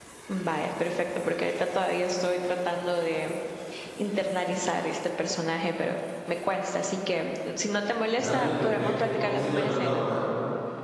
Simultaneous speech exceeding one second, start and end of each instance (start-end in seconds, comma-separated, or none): 8.2-10.1